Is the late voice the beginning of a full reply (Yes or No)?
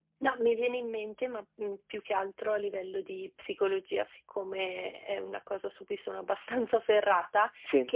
No